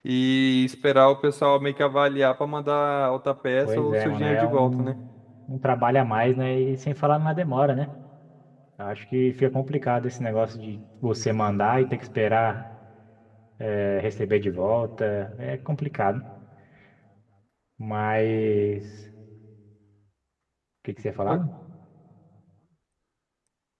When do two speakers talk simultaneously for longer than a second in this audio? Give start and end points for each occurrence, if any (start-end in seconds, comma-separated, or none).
3.6-4.9